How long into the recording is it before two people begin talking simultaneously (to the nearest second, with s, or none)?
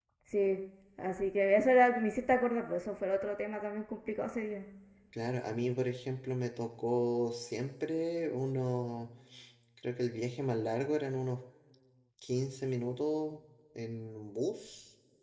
none